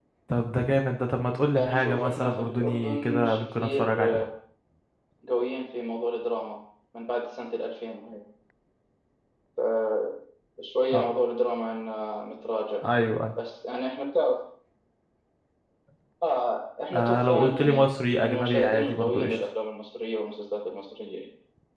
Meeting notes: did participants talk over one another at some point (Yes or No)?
Yes